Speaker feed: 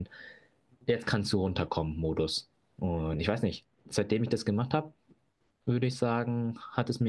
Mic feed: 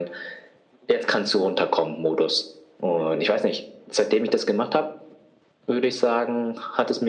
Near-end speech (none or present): none